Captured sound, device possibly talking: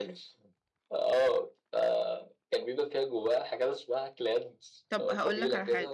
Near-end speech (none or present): present